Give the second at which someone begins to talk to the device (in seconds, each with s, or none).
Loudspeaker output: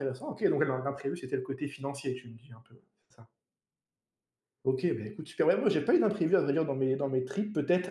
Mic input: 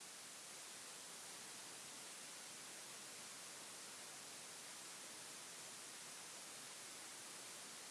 none